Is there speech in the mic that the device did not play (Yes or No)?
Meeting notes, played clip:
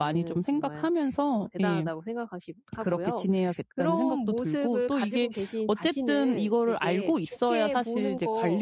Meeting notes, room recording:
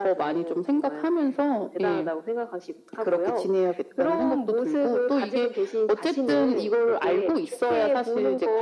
No